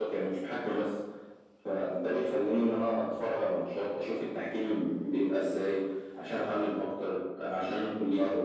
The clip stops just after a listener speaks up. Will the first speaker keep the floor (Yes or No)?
No